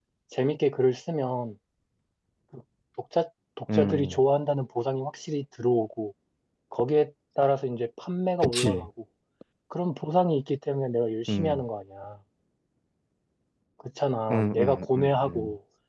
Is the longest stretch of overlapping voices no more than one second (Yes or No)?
No